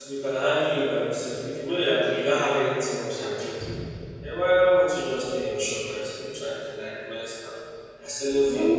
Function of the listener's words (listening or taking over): listening